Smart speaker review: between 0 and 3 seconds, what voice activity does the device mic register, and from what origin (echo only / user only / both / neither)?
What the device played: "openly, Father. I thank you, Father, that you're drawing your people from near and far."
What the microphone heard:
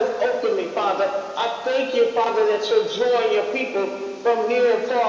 echo only